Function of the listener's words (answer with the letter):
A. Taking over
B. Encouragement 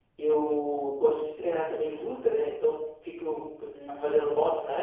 B